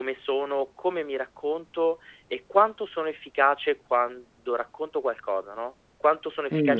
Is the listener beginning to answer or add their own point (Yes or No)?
Yes